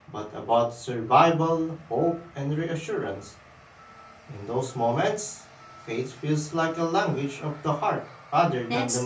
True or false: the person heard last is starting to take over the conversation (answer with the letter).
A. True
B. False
A